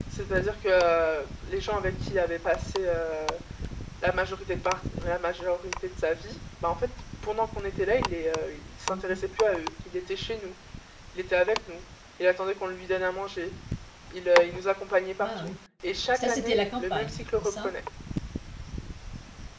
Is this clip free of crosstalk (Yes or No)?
No